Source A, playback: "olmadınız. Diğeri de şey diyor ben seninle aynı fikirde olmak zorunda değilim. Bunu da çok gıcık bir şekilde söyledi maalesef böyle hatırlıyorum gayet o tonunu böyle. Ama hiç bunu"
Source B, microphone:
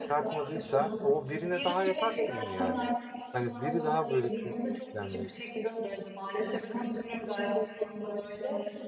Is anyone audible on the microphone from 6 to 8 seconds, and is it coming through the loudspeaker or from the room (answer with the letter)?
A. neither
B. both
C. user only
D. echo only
D